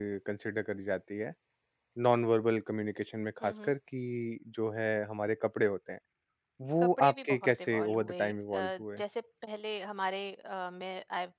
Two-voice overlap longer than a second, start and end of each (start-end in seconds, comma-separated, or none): 6.8-9.0